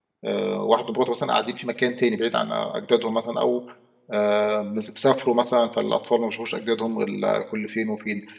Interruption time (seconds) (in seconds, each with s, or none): none